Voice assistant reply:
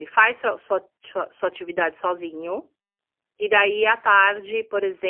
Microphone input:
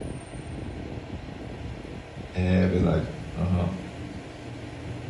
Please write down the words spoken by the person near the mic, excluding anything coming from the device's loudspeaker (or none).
é verdade. Aham.